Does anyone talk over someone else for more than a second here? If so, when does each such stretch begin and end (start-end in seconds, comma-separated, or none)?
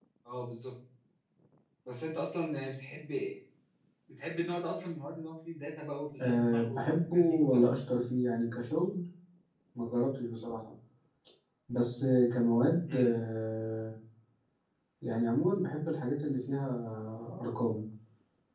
6.2-7.6